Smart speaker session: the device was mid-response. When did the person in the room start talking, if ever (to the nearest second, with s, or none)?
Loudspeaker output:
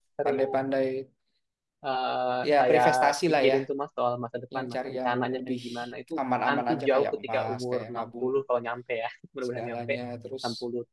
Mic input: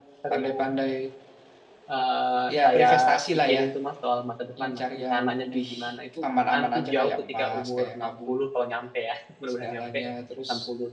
none